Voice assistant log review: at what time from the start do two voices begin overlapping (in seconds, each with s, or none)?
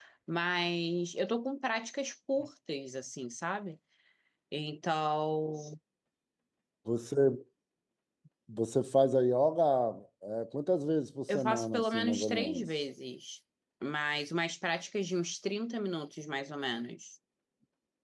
11.3 s